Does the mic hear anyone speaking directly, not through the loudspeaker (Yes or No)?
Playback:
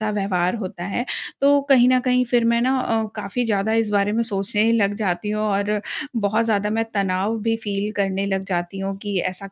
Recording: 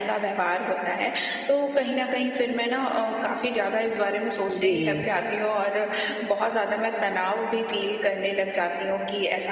Yes